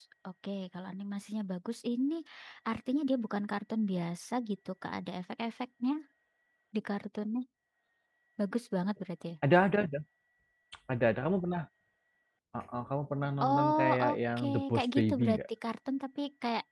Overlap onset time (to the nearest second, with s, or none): 13 s